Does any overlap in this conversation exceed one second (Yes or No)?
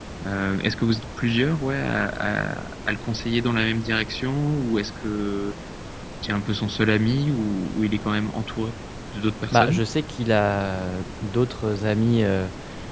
No